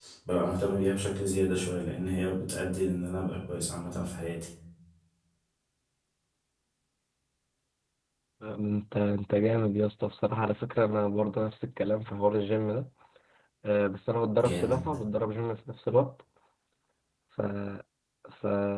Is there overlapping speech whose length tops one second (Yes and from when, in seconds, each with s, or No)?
No